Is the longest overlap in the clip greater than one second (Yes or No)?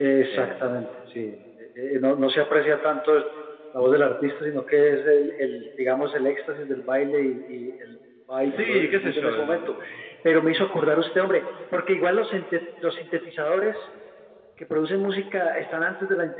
Yes